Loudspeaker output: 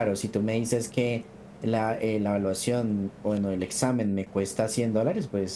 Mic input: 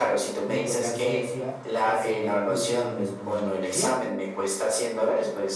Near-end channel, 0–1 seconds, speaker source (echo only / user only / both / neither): both